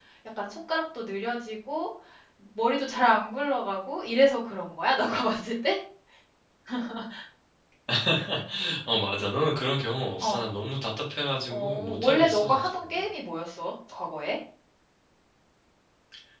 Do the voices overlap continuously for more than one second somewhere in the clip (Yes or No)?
Yes